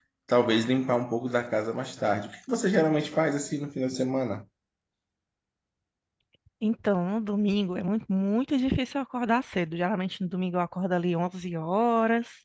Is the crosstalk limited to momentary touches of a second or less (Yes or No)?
Yes